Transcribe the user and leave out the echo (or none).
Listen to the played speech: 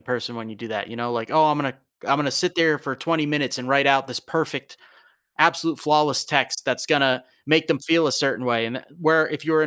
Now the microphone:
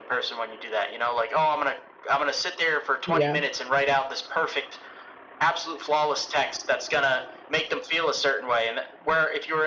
yeah,